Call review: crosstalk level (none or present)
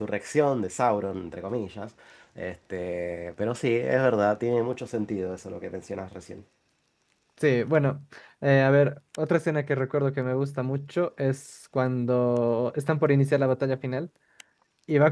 none